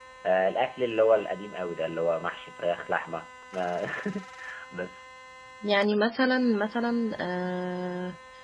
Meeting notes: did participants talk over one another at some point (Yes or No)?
No